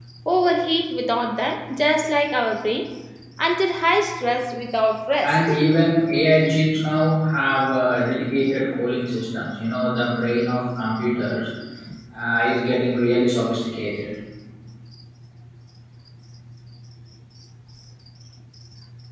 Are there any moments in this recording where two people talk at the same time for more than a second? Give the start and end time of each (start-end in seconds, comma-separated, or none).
none